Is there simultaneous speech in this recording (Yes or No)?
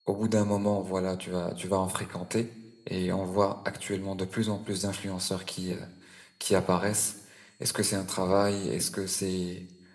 No